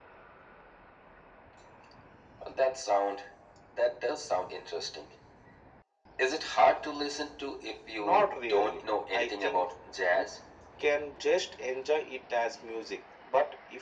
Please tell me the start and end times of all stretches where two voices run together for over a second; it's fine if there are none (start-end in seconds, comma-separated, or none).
8.0-9.7